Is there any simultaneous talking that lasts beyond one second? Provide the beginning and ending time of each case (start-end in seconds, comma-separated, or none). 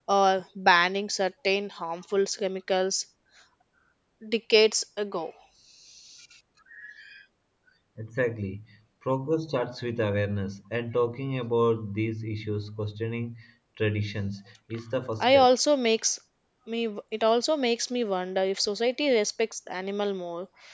none